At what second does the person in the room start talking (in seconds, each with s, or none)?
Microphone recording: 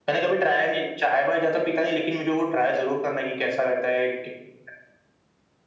none